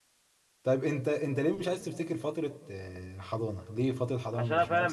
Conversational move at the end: taking over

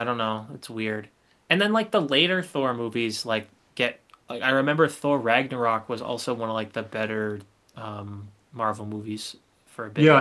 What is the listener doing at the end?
taking over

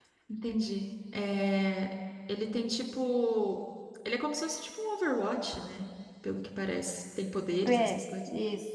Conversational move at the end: taking over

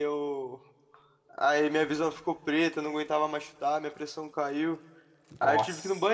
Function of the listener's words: listening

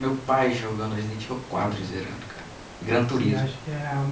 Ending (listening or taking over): taking over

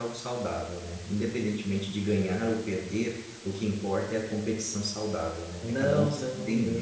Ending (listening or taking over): taking over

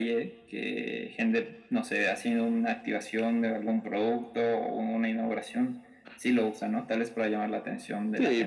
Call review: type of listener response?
taking over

